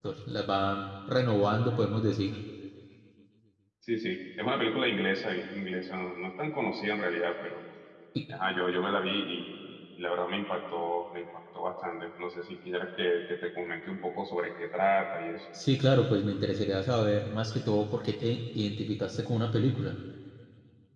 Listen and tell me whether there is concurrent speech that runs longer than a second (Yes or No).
No